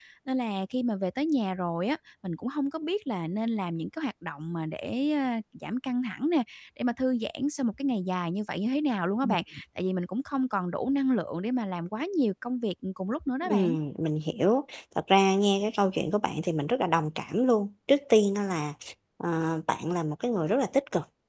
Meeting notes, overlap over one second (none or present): none